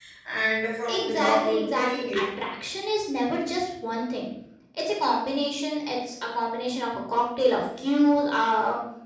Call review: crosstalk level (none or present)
present